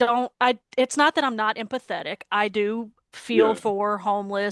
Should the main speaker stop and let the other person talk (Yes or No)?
No